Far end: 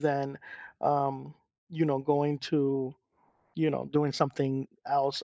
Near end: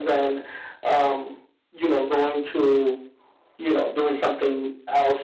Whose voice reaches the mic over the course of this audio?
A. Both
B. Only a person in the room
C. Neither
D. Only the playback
D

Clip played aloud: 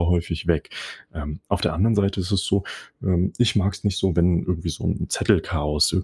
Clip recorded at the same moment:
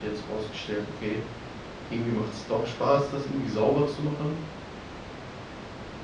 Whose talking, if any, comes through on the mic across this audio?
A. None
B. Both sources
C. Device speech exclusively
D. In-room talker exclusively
D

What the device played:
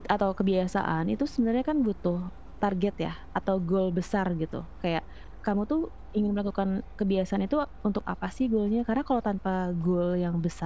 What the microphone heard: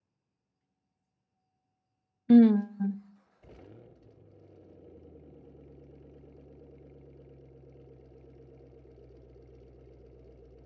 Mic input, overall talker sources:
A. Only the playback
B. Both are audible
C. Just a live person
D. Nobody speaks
C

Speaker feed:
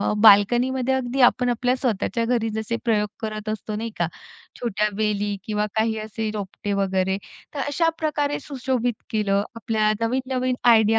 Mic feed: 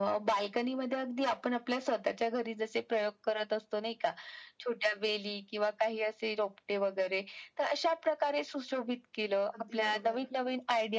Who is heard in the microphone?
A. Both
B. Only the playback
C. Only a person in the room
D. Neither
A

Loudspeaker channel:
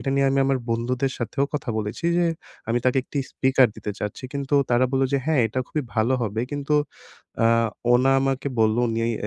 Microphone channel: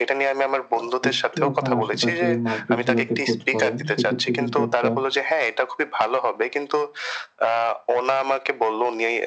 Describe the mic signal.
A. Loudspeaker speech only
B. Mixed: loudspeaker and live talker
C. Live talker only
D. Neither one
B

